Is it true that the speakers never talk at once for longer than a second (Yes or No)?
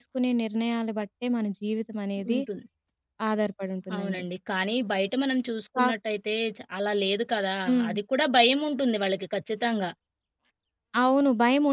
Yes